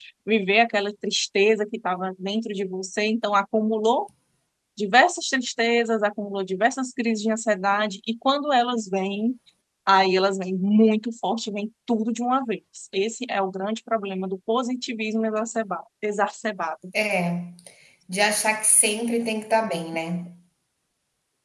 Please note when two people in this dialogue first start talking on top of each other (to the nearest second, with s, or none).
none